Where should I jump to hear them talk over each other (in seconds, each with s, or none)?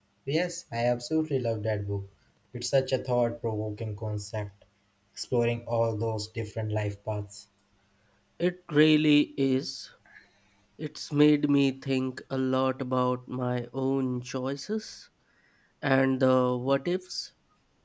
none